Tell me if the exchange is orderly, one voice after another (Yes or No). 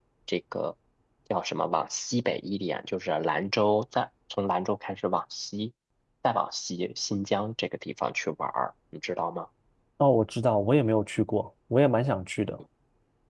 Yes